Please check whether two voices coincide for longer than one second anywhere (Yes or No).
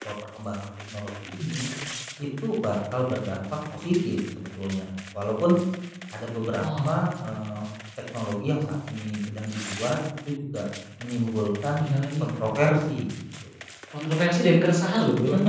No